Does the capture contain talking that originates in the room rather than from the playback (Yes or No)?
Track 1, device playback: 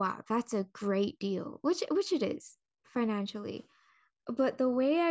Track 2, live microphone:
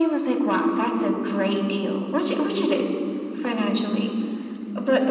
No